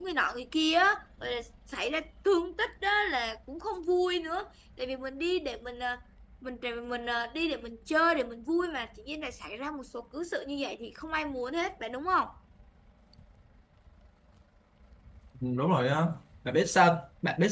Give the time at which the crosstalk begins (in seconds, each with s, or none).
none